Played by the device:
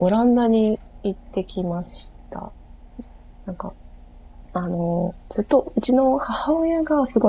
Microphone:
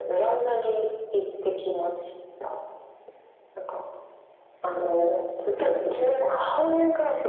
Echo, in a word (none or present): present